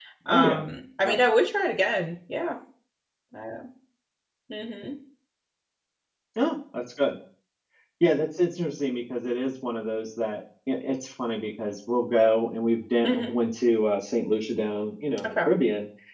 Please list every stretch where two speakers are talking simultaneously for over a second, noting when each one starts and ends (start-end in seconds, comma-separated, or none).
none